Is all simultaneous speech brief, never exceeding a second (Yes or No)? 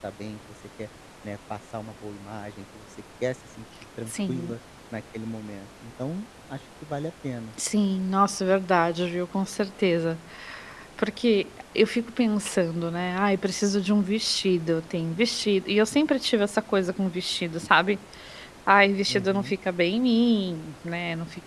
Yes